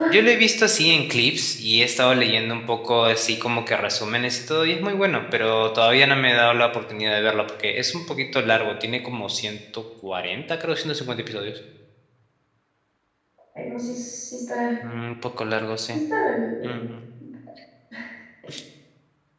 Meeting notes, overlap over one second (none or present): none